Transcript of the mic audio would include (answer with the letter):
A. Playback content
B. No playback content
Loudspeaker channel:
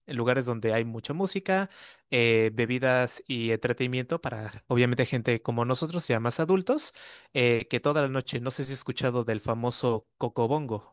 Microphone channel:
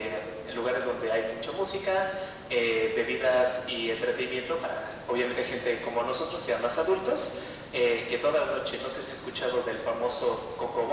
A